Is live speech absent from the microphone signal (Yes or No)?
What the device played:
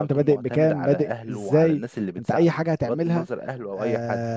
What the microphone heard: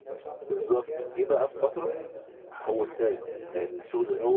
No